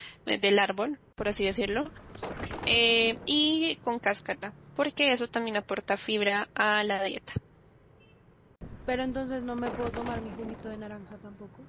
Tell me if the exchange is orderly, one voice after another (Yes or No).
Yes